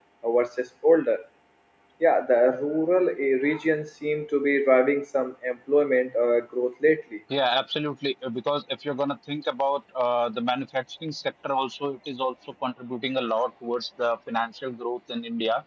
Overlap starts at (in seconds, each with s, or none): none